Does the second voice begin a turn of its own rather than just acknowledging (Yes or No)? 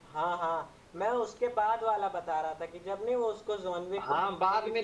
Yes